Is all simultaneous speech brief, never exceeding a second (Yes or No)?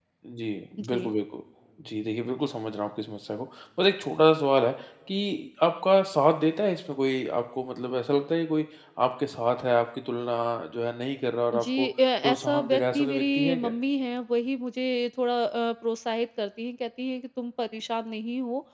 No